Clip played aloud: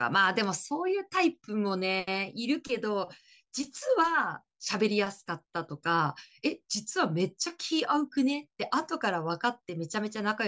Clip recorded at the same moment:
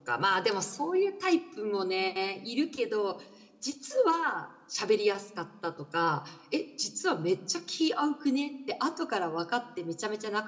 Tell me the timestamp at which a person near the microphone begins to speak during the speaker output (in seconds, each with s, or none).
none